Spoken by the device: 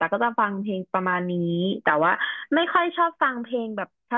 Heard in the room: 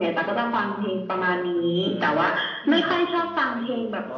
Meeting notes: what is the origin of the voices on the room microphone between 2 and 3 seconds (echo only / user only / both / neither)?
both